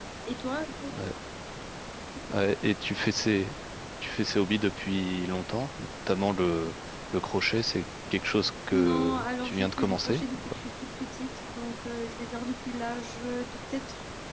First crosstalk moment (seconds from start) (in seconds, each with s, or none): 8.7 s